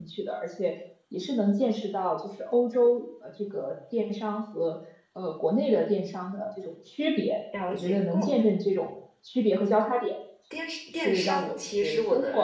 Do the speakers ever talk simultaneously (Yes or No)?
Yes